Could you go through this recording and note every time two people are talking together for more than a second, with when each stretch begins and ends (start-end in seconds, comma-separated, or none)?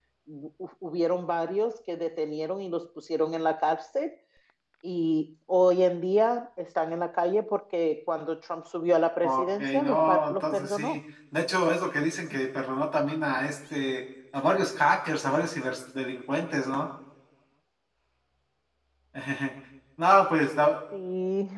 9.2-11.0